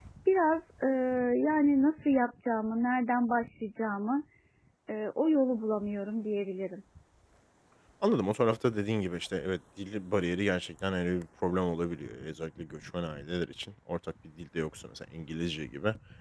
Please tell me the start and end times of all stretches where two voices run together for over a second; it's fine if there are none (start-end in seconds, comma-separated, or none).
none